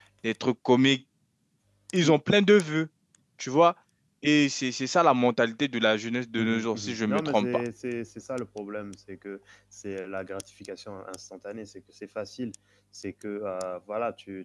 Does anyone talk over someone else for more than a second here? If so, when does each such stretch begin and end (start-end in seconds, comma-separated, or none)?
6.4-7.6